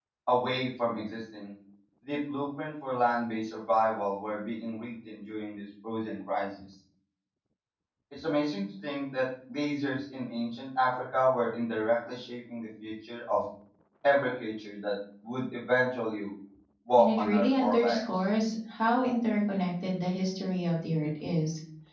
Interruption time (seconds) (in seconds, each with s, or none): 17.0 s